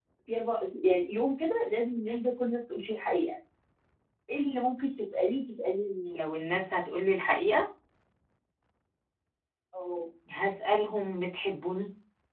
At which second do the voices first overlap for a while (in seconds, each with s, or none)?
none